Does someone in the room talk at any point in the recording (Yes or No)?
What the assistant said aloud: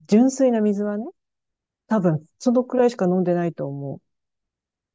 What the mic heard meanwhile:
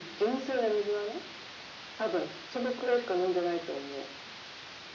No